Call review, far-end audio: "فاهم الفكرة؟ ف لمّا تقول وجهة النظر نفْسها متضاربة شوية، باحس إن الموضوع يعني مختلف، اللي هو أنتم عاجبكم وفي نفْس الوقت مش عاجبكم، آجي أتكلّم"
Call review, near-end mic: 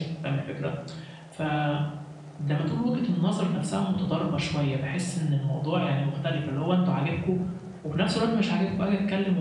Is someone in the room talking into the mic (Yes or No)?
No